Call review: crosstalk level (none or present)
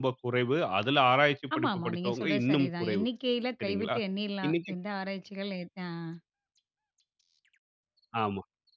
present